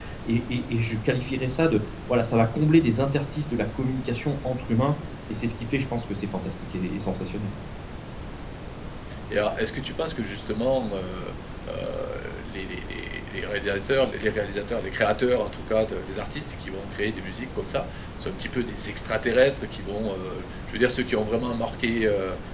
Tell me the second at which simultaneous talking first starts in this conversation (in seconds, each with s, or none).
none